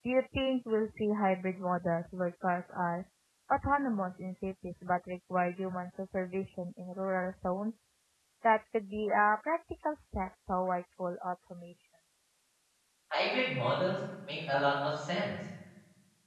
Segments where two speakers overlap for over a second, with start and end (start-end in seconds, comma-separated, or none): none